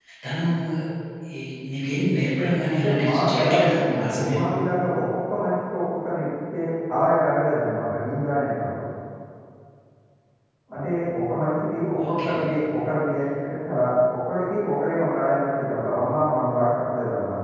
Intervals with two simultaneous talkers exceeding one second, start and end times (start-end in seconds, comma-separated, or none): 2.8-4.5